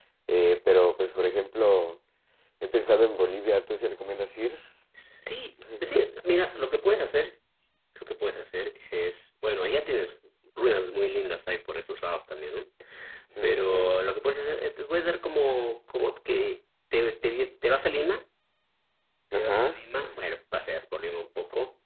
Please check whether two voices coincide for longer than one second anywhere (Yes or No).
No